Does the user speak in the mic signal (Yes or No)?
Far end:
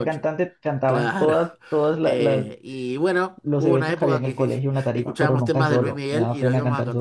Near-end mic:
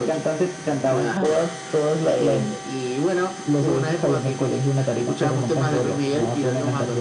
No